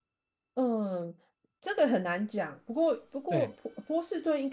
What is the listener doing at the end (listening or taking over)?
listening